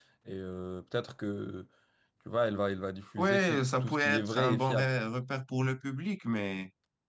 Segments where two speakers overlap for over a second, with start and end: 3.2-4.9

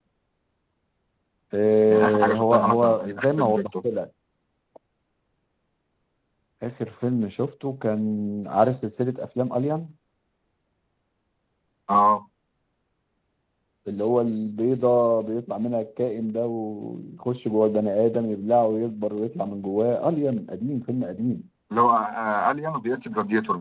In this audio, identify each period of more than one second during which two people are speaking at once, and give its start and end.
1.9-3.9

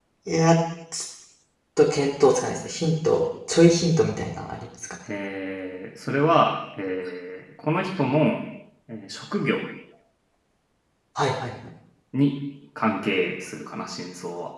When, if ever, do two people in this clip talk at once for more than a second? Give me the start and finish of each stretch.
none

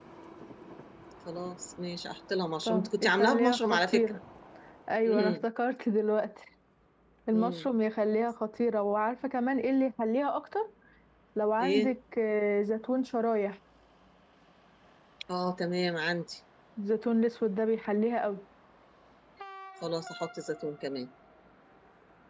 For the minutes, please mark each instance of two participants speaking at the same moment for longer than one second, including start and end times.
2.6-4.2

